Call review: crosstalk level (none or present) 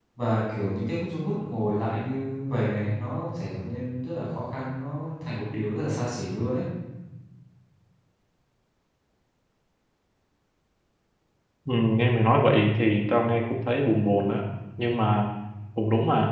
none